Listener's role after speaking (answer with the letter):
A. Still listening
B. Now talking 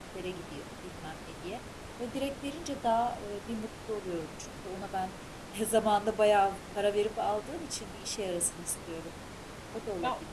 B